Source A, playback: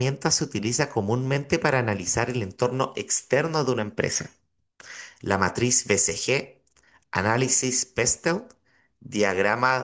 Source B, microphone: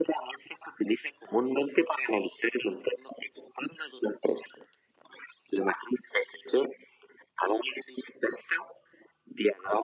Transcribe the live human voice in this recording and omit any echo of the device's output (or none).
none